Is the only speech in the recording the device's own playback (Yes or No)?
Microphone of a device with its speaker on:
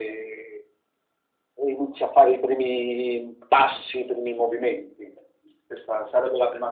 Yes